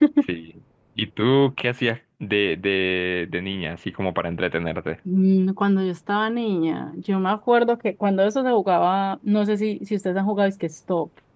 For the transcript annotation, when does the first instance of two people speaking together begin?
none

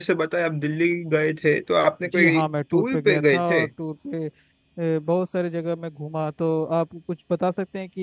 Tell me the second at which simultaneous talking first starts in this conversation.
2.0 s

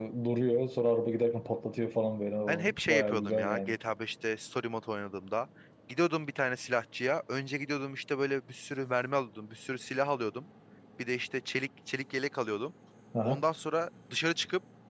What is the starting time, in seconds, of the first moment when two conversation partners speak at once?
2.5 s

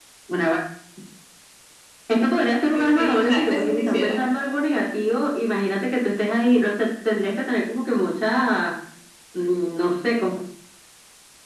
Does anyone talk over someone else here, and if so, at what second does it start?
2.7 s

